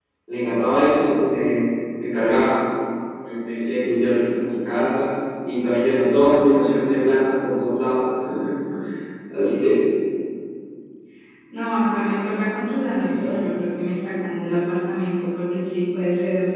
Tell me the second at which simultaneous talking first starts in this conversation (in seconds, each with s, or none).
none